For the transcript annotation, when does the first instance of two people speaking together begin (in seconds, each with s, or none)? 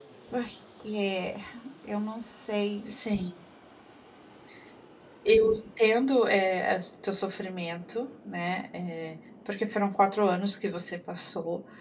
none